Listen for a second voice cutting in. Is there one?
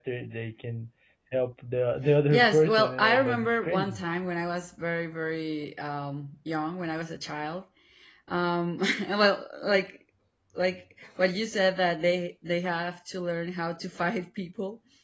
Yes, from 2.3 s

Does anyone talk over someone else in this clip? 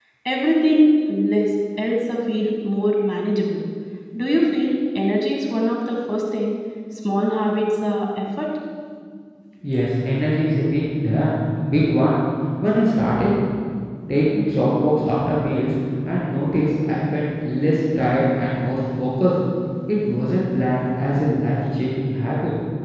No

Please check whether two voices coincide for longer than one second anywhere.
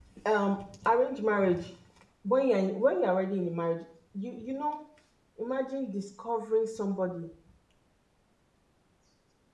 No

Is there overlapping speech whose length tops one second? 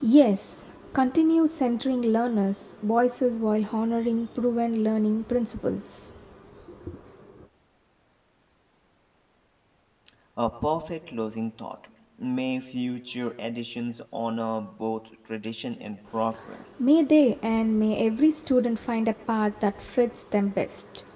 No

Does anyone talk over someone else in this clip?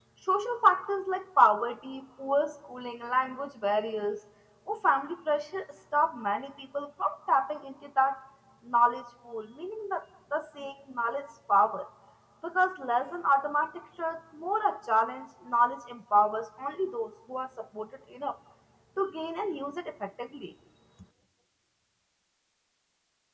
No

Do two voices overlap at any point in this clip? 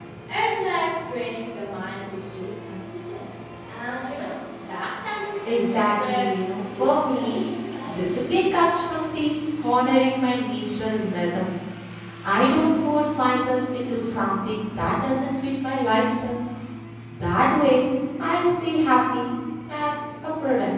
Yes, from 5.4 s

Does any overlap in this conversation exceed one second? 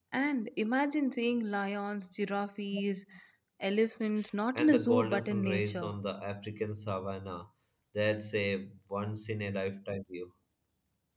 Yes, from 4.5 s

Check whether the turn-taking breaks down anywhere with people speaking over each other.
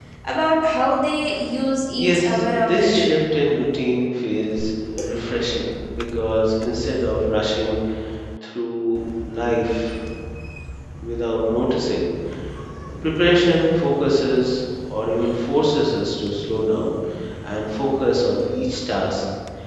Yes, from 1.9 s

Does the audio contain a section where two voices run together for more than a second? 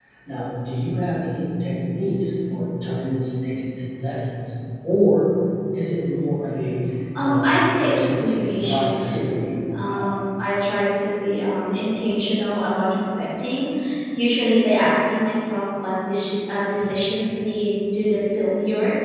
Yes, from 7.2 s

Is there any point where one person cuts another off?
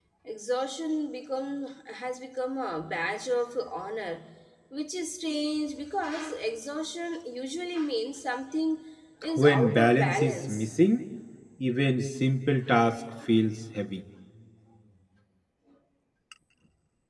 Yes, from 9.4 s

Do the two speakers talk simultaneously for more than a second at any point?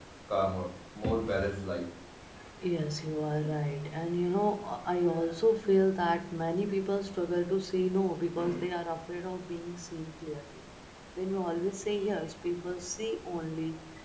No

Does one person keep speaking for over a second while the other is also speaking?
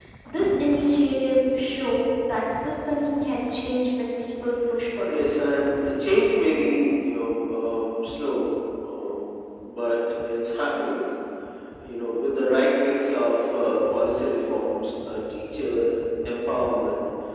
No

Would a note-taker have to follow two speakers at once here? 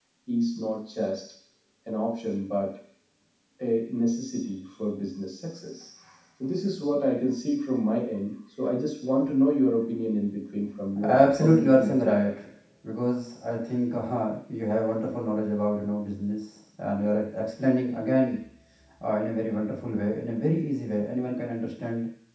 Yes, from 11.0 s

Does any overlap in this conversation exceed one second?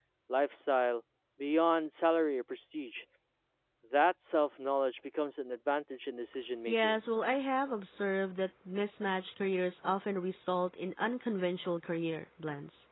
No

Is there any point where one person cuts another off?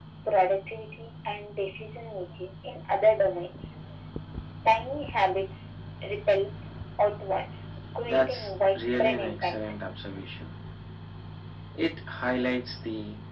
Yes, from 8.1 s

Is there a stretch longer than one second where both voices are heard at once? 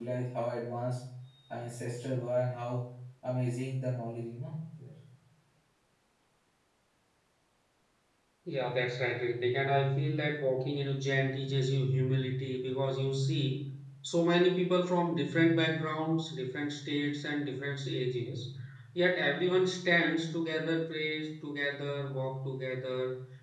No

